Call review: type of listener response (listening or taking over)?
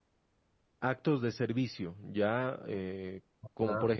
taking over